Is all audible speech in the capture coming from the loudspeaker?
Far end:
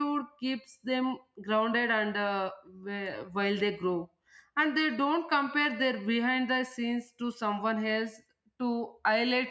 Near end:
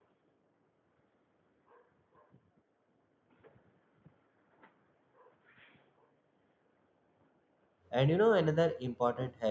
No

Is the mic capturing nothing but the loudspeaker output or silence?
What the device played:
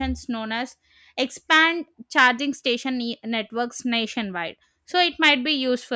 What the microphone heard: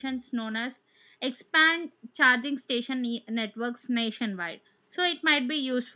Yes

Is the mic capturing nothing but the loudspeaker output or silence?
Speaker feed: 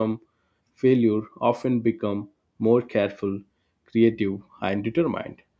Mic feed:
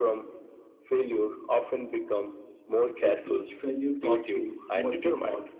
No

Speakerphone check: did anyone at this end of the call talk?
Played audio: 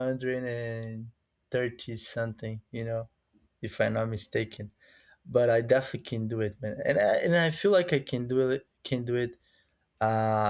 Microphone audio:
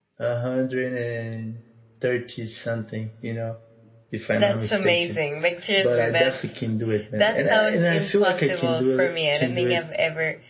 Yes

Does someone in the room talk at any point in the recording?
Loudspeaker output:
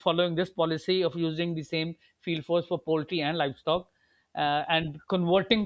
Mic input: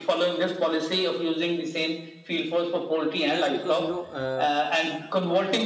Yes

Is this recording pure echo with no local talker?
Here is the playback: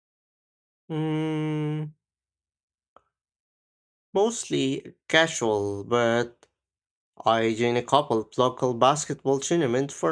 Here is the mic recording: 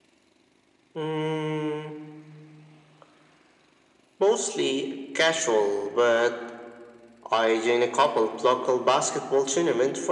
Yes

